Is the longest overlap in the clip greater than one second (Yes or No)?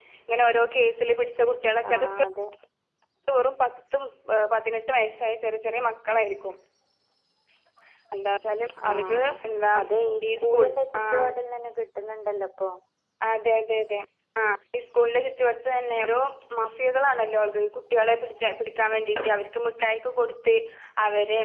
No